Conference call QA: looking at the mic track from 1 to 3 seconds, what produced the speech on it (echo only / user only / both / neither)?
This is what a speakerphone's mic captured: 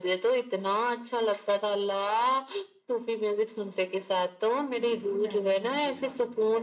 echo only